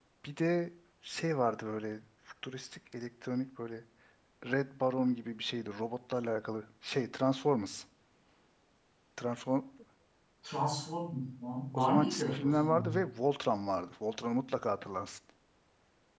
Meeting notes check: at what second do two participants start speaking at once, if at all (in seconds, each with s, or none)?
11.7 s